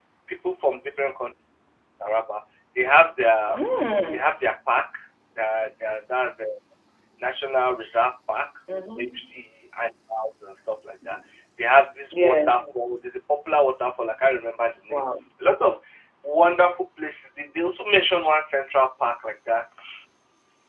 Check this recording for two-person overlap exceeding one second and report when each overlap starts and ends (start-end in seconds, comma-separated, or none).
none